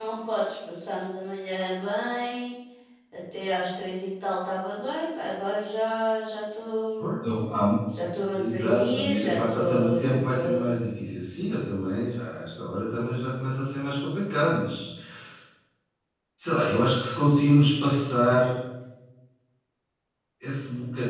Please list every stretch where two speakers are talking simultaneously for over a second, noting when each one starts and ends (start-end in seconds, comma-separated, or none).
8.4-10.8